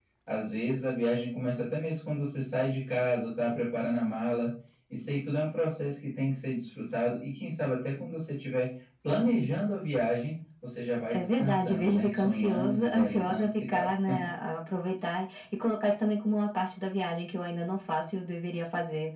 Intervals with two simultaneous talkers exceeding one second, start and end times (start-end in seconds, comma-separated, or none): 11.1-13.9